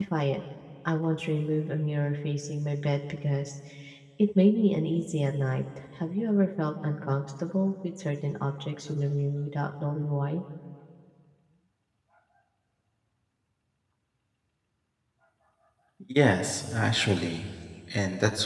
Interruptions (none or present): none